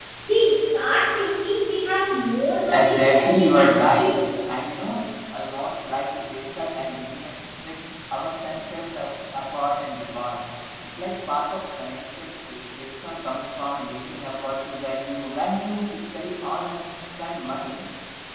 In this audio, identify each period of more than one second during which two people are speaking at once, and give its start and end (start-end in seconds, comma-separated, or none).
2.7-4.1